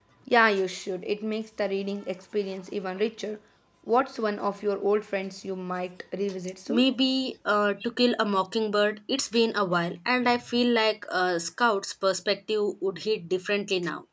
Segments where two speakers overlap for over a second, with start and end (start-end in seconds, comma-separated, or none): none